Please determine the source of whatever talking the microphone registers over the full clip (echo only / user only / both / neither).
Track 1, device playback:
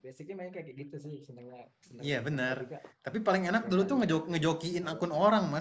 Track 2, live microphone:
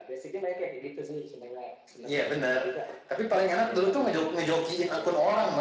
echo only